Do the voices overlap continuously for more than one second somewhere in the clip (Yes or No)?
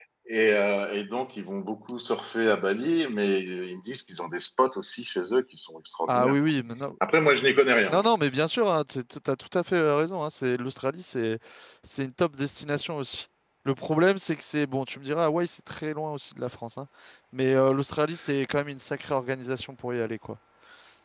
No